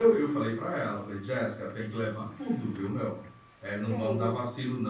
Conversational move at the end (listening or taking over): listening